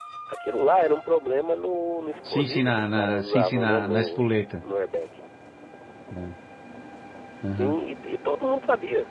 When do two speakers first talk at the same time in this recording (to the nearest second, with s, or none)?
2 s